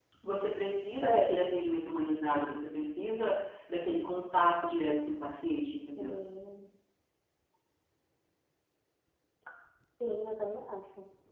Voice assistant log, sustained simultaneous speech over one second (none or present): none